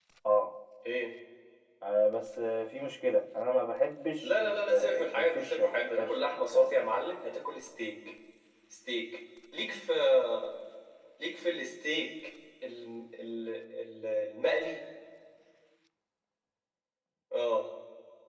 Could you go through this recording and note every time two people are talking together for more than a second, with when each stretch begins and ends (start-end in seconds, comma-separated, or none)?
4.2-6.8